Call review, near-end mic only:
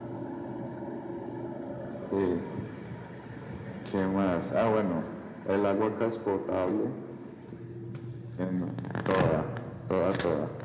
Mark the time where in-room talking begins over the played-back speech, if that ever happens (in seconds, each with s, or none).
none